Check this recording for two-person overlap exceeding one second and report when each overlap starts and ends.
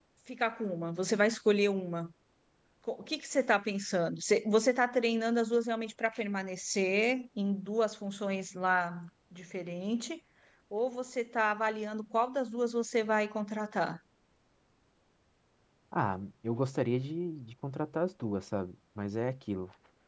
none

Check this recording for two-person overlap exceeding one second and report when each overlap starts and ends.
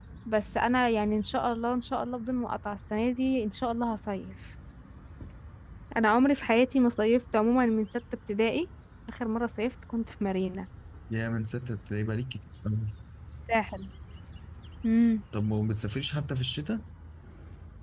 none

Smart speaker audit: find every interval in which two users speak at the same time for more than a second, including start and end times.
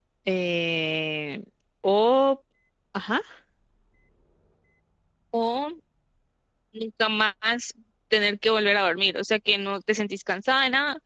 none

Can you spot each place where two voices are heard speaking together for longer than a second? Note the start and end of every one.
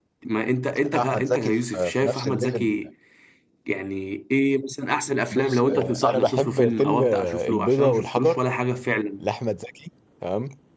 0.9-2.6, 5.3-8.4

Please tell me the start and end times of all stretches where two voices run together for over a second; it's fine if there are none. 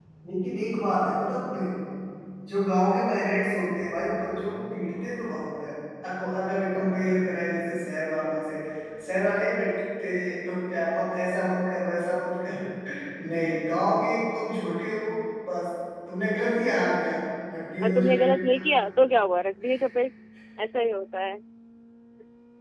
none

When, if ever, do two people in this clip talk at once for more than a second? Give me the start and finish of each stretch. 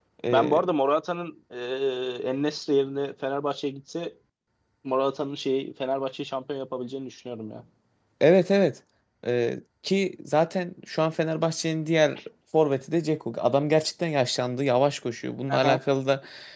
none

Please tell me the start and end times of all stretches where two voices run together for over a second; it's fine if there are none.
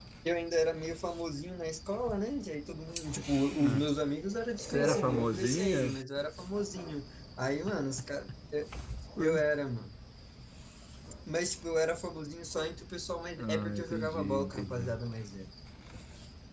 4.6-6.0, 13.4-15.0

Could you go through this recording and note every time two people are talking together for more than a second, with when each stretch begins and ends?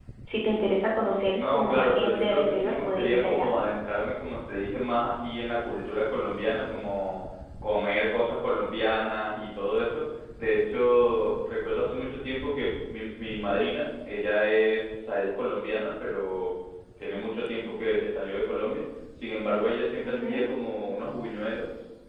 1.2-3.5

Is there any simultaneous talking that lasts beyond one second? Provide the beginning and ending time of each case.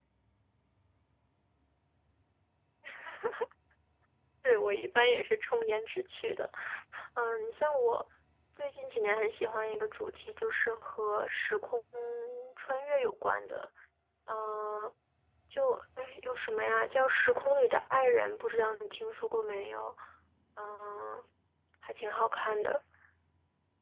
none

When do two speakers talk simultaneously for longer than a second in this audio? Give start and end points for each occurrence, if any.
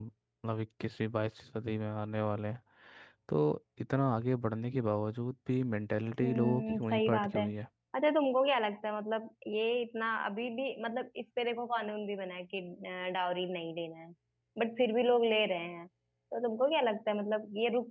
6.2-7.5

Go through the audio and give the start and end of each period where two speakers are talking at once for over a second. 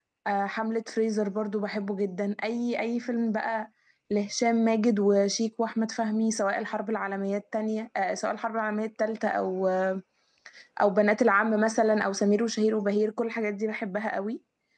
none

